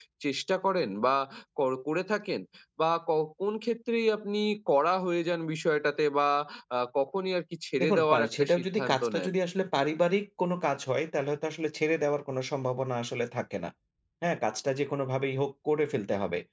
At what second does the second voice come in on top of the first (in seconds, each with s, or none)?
7.8 s